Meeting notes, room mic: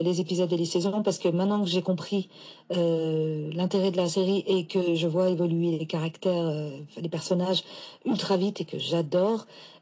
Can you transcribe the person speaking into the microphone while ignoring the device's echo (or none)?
none